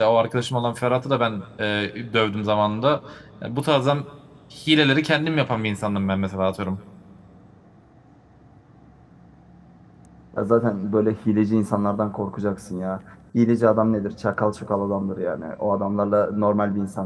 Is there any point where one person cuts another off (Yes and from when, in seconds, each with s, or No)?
No